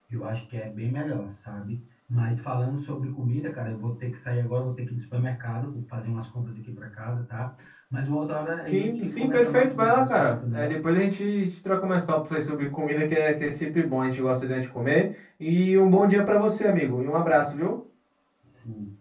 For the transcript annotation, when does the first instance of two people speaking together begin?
8.7 s

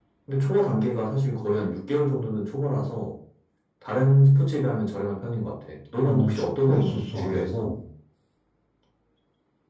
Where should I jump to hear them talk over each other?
6.0 s

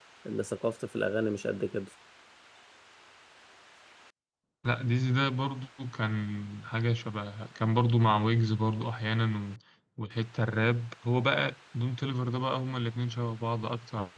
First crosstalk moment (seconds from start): none

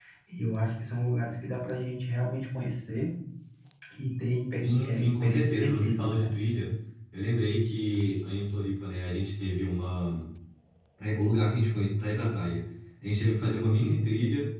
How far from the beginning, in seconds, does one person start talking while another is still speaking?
4.6 s

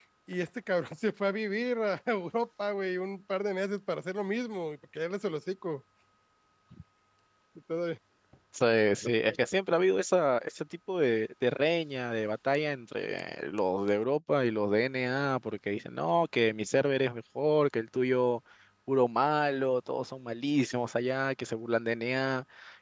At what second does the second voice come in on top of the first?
none

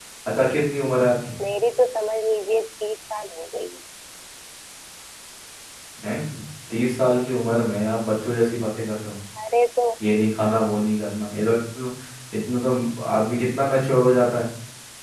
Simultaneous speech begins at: none

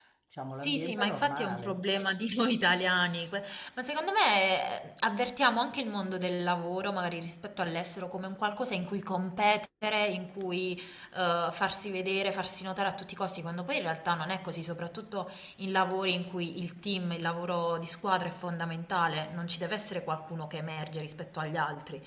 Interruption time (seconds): 0.6 s

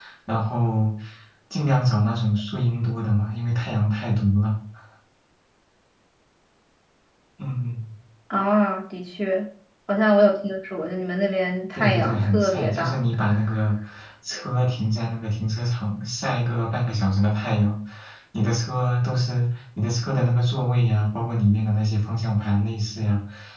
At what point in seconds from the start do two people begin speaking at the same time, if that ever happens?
11.8 s

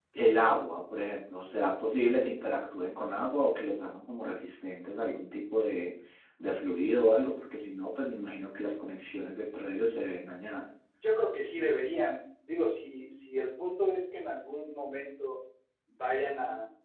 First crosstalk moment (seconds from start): none

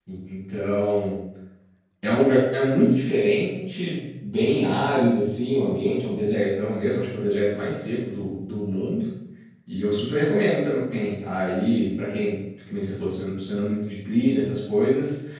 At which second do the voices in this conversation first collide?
none

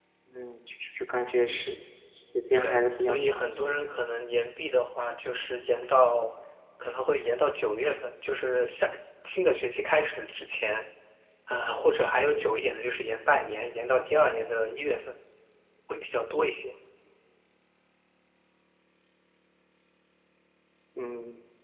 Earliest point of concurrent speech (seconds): 2.5 s

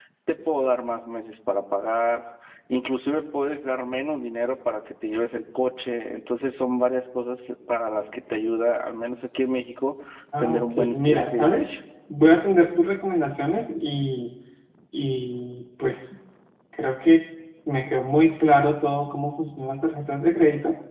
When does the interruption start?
10.4 s

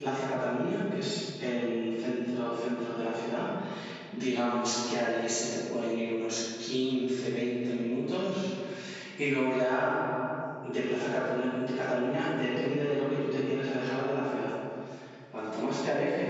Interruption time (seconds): none

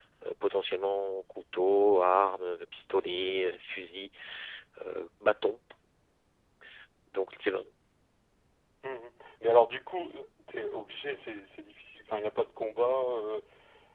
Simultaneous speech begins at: none

